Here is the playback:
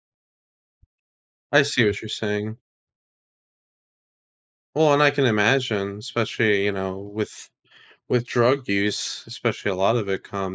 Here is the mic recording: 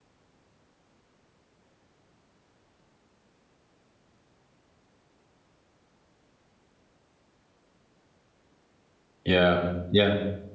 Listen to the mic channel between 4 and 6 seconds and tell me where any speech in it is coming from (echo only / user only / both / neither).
neither